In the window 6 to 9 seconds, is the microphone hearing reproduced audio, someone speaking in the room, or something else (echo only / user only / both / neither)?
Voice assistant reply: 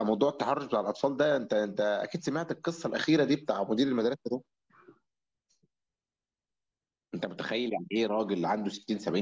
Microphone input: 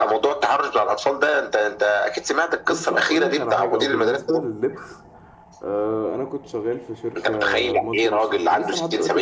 both